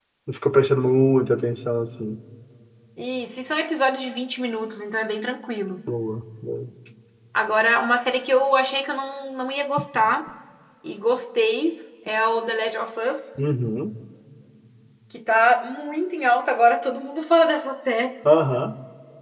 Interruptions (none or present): none